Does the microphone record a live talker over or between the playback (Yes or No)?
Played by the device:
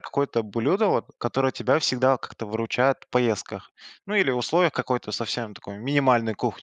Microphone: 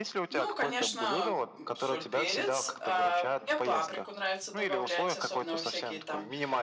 Yes